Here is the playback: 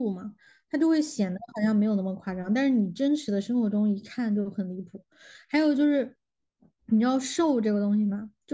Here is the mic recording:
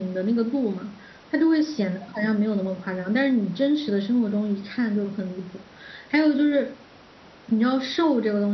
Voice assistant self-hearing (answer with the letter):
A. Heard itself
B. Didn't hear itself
A